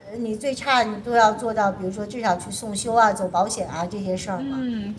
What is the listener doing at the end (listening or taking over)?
taking over